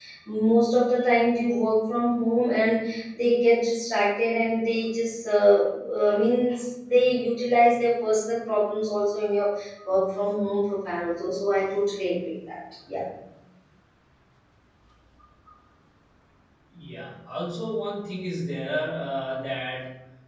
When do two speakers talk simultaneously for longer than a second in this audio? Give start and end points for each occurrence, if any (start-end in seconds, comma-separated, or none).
none